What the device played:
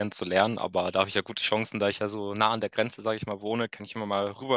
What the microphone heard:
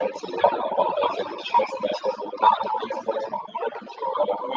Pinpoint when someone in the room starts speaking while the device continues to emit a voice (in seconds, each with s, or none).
none